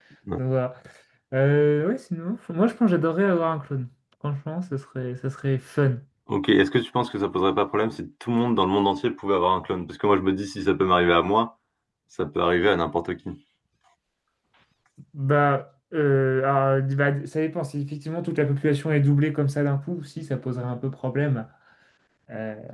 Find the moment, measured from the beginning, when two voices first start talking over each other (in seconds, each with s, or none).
none